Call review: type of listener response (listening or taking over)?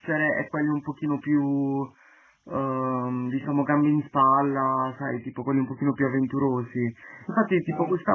listening